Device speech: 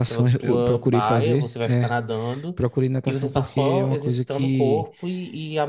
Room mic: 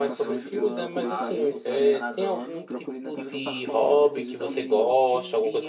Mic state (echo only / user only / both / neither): both